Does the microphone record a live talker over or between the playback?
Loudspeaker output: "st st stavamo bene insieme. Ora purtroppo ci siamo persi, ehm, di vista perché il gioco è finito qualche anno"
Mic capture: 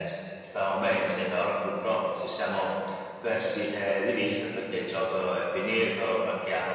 No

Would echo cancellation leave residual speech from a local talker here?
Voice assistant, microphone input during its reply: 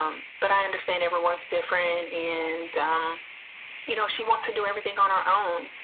No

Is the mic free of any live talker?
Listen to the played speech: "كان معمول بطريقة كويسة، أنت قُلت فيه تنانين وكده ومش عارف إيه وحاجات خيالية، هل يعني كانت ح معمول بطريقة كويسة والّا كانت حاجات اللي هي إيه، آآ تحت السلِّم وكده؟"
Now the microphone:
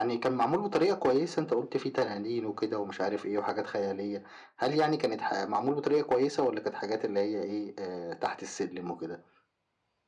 Yes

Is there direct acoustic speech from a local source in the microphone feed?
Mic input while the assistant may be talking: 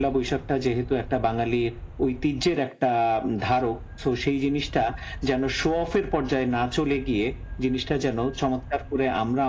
No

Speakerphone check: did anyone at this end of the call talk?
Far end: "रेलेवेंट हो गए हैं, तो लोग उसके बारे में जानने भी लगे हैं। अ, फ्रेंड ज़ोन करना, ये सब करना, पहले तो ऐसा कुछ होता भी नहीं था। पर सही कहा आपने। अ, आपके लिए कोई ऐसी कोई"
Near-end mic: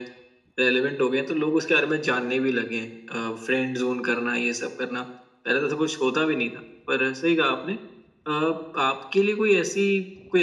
No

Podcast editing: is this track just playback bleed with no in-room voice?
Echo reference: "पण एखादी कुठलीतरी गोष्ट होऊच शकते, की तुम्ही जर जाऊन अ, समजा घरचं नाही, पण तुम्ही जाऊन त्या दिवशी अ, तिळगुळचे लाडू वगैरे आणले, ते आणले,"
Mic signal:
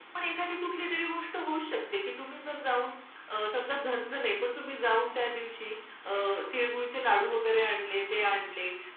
Yes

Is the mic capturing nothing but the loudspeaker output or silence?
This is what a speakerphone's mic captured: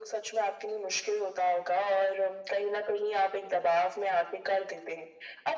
Yes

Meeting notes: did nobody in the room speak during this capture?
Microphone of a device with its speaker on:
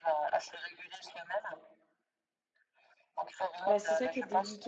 No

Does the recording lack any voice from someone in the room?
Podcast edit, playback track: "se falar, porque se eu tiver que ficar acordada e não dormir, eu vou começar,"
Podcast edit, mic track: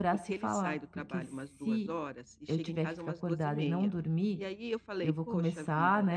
No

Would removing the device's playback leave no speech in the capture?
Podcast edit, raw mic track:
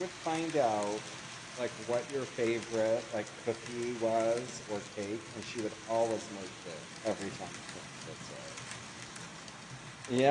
No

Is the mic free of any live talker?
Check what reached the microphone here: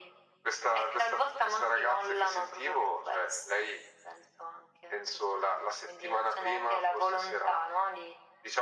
Yes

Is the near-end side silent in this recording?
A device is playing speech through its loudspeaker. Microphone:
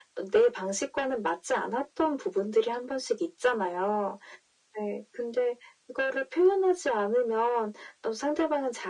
Yes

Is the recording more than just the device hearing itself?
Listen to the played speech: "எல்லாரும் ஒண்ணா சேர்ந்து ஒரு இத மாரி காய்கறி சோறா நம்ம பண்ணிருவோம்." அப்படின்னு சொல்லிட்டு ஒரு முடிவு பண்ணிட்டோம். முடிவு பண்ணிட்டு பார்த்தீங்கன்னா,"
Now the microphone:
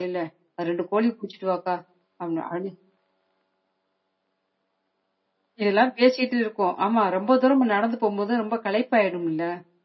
Yes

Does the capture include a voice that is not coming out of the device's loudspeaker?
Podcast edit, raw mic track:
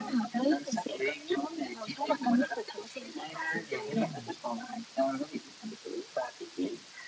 Yes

